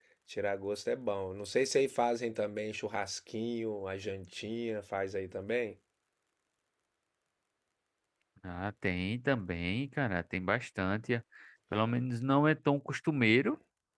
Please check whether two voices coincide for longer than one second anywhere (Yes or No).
No